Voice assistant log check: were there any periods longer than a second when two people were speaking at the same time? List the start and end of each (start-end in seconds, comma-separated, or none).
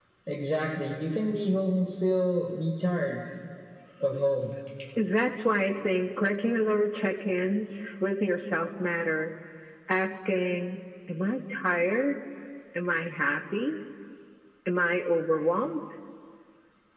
none